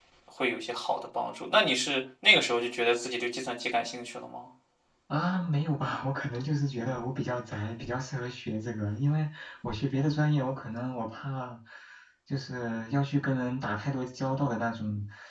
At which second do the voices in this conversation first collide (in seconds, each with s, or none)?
none